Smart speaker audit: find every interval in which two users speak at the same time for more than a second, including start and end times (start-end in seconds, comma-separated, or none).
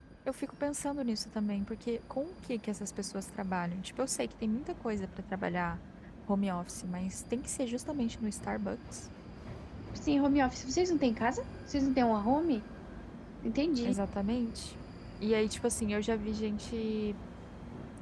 none